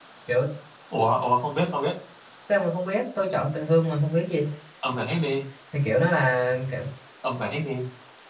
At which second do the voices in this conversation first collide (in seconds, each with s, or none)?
none